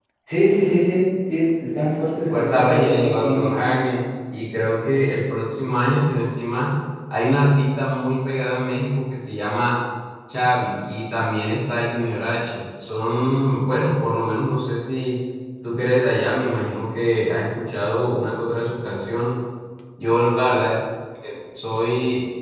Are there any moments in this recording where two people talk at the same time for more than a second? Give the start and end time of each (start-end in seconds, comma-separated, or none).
2.3-3.8